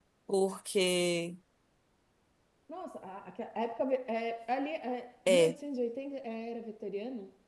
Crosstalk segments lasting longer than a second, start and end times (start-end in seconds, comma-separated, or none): none